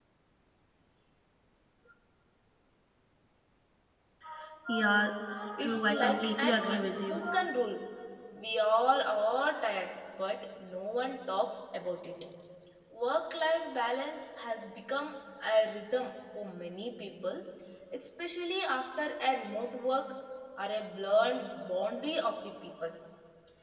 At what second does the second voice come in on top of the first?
5.6 s

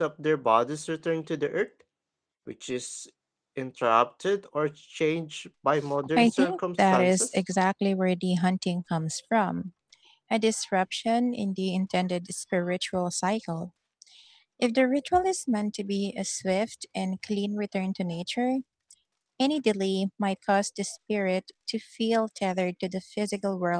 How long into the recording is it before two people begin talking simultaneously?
6.2 s

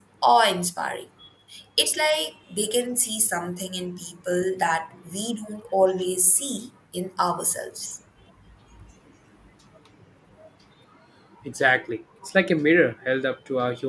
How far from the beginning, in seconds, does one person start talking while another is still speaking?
none

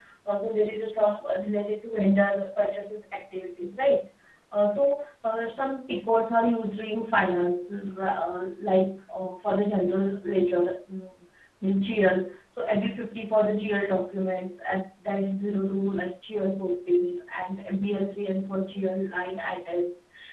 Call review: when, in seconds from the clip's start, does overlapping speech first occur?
none

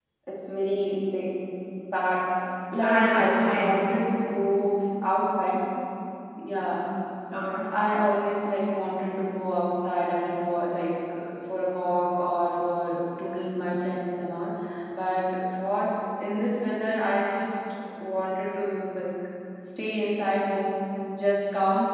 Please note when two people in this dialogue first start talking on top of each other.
2.7 s

